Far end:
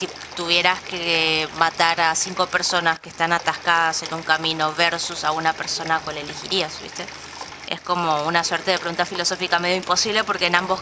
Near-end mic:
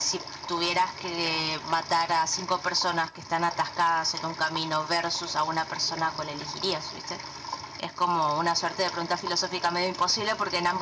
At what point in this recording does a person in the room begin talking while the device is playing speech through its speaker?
none

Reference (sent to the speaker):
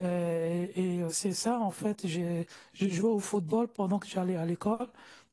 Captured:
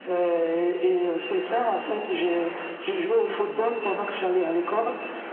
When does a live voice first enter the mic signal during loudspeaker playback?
none

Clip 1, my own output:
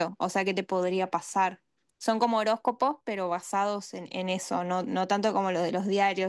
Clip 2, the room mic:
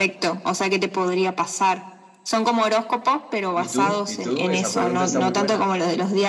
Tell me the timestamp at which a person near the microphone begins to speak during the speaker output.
4 s

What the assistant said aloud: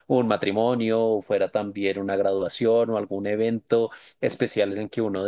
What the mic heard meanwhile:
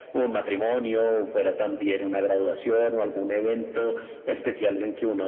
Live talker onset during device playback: none

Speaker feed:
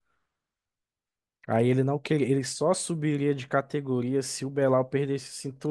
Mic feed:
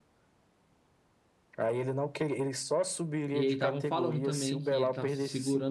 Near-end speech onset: 3 s

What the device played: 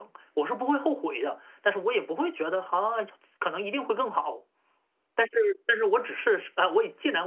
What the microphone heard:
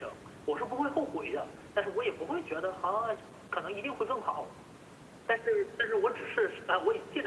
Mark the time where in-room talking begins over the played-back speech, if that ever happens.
none

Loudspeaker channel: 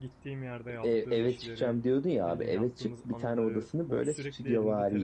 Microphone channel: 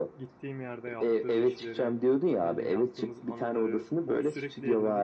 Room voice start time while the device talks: none

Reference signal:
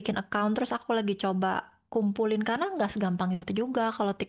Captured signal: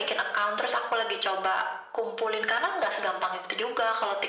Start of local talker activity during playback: none

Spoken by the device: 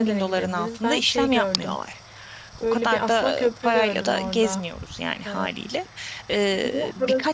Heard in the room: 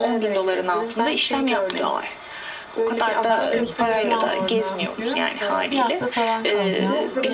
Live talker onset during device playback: 3 s

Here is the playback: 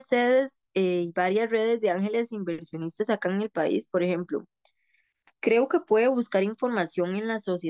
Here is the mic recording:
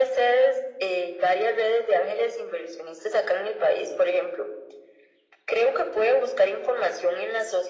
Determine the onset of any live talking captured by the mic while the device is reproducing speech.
none

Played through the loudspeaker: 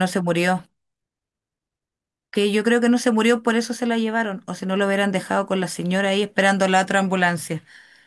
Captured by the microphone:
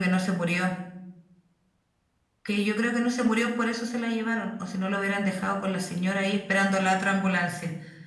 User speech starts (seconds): none

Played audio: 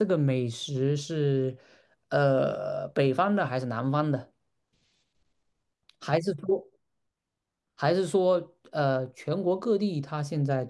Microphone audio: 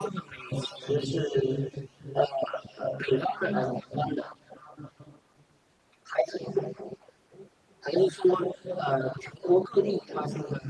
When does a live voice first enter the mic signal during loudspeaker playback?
none

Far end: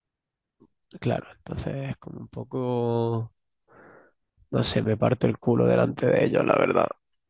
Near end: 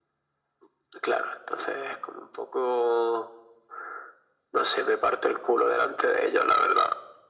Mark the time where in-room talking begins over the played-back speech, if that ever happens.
none

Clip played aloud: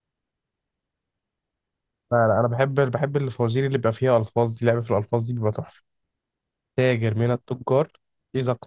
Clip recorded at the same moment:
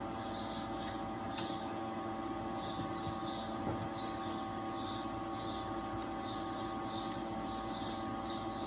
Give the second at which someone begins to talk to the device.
none

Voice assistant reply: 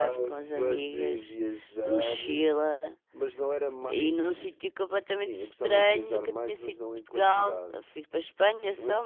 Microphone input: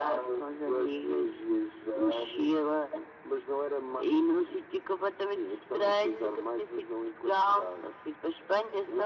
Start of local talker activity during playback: none

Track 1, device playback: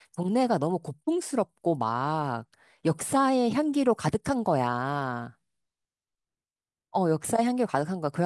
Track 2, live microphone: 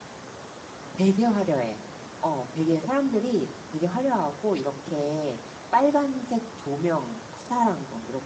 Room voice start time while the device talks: 1 s

